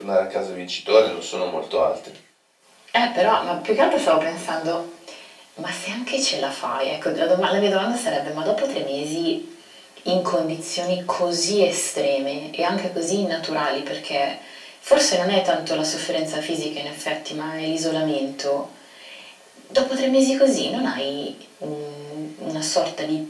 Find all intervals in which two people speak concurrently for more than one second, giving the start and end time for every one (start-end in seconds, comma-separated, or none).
none